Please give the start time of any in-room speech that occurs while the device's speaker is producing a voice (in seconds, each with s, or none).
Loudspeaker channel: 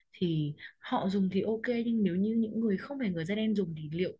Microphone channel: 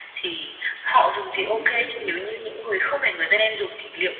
1.3 s